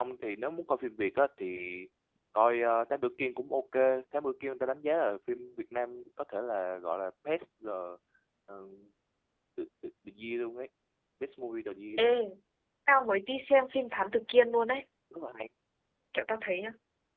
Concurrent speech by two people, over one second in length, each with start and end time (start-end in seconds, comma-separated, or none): none